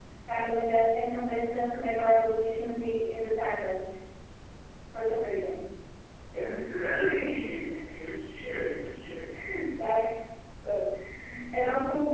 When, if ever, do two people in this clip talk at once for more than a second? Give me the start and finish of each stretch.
none

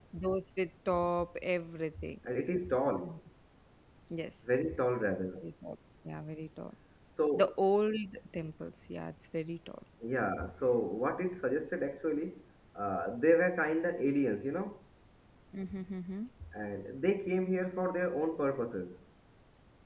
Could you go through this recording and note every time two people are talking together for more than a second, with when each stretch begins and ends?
none

